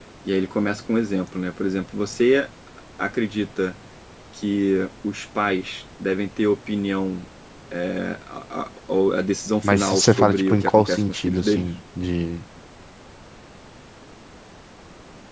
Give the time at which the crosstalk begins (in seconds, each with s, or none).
9.6 s